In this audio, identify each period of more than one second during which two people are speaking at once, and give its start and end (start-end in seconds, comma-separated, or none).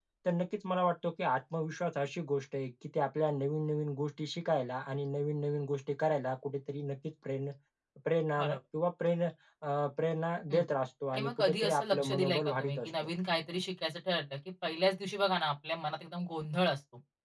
11.1-13.1